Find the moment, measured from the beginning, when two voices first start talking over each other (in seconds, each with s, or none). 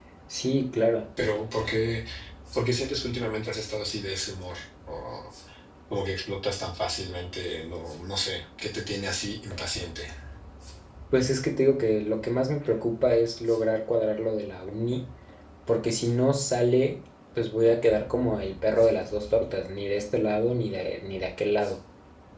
none